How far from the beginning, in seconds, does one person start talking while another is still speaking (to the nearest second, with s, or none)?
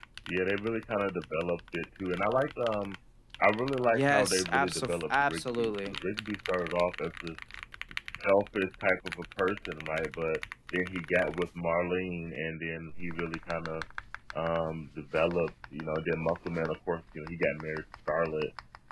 4 s